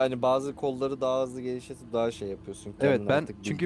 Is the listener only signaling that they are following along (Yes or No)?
No